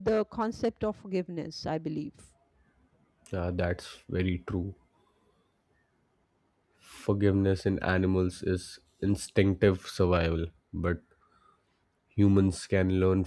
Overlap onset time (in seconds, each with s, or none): none